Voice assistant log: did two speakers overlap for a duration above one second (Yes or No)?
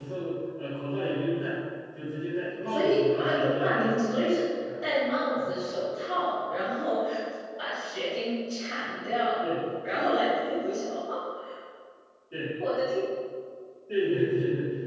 Yes